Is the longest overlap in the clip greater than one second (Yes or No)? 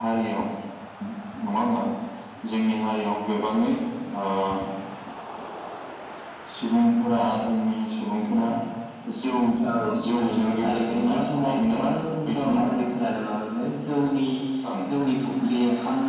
Yes